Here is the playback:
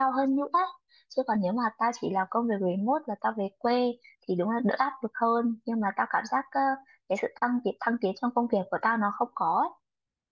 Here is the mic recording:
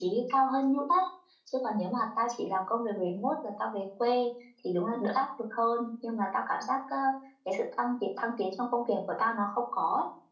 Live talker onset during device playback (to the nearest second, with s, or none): none